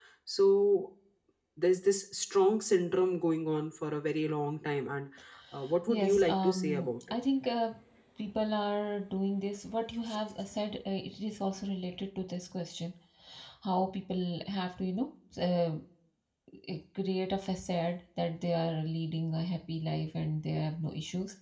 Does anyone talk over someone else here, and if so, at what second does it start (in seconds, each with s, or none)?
5.9 s